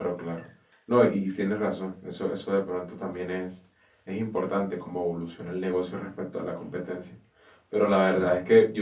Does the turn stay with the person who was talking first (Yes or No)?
Yes